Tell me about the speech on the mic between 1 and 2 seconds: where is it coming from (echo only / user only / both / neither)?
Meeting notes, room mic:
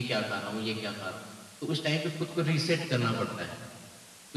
echo only